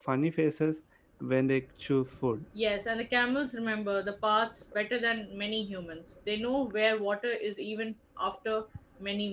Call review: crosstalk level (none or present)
none